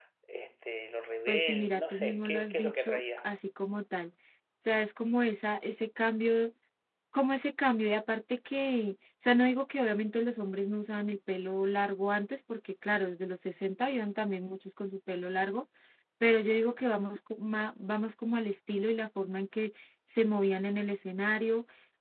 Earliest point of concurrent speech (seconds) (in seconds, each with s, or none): 1.3 s